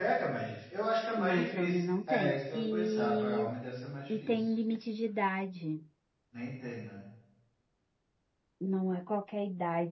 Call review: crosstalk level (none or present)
present